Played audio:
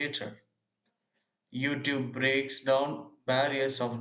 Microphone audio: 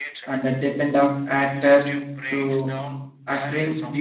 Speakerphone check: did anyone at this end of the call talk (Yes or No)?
Yes